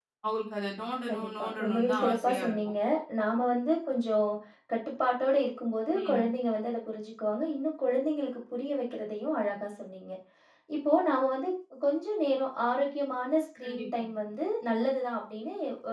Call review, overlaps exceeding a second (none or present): present